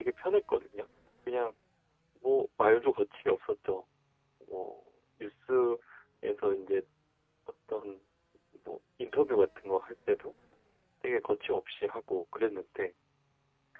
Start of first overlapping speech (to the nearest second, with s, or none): none